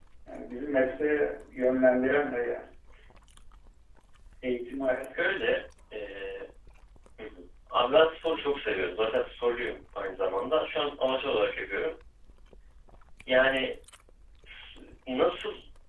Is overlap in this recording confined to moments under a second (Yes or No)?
Yes